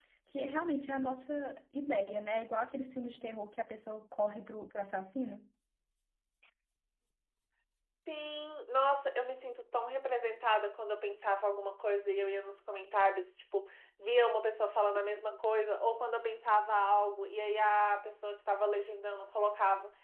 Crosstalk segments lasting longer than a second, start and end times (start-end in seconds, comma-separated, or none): none